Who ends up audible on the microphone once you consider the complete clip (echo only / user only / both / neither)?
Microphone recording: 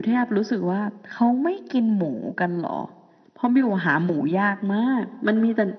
echo only